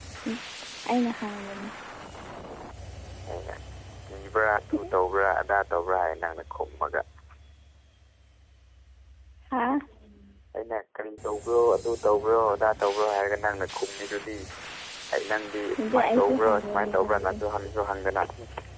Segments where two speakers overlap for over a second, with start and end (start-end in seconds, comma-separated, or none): 15.8-17.4